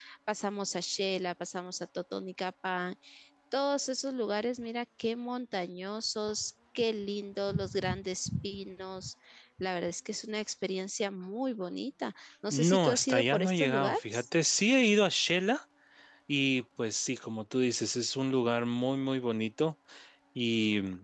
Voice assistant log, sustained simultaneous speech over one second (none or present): present